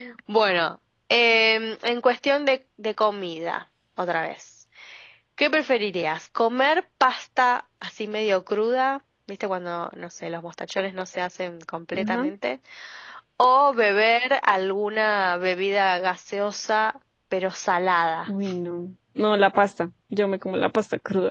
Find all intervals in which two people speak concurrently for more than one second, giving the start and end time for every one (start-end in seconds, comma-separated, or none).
none